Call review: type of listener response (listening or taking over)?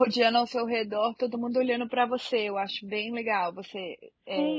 taking over